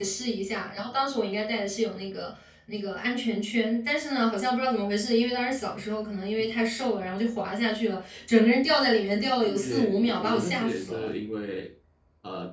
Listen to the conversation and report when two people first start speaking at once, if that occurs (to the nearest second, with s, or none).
9 s